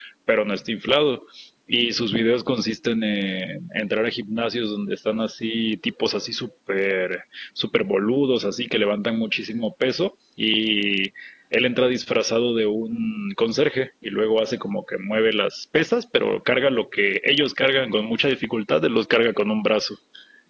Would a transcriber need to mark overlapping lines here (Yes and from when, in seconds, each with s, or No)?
No